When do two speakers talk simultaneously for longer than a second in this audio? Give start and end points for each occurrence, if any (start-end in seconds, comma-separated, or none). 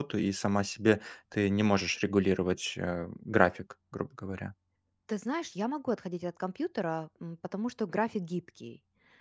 none